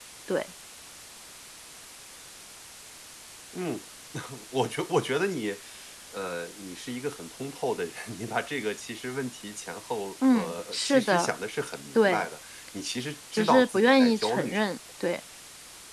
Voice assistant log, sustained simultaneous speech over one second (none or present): present